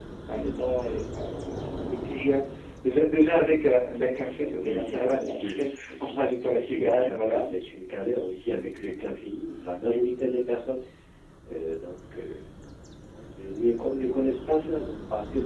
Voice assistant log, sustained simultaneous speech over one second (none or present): present